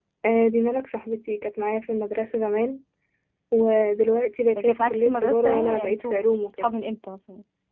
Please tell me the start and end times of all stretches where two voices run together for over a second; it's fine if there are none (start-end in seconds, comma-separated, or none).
4.6-6.7